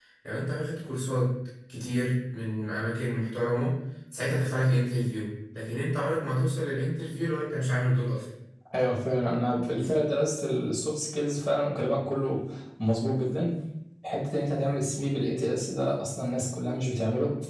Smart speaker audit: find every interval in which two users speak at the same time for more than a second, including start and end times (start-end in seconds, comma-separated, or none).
none